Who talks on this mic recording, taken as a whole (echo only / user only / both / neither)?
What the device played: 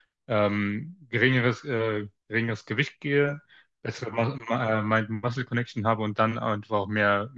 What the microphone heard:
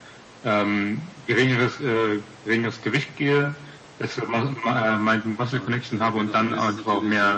both